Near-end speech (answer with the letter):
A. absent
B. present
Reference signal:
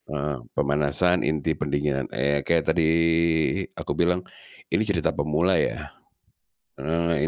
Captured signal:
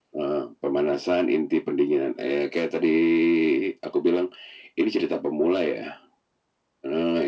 A